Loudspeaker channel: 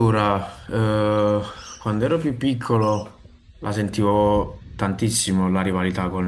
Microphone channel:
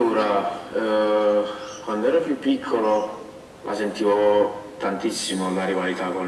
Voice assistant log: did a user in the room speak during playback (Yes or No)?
No